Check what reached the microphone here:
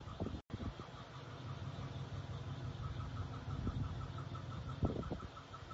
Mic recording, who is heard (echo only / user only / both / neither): neither